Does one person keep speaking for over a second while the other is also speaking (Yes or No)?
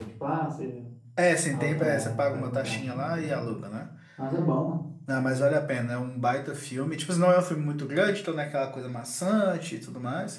Yes